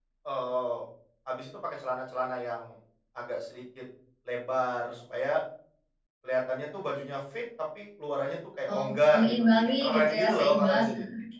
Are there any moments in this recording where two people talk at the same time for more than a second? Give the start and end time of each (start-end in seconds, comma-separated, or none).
8.7-10.8